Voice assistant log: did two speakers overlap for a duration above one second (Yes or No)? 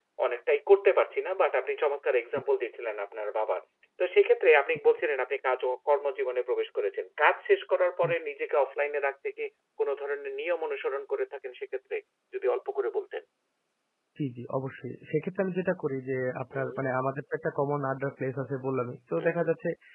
No